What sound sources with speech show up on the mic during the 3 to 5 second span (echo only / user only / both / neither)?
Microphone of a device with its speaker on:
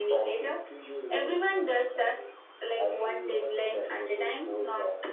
echo only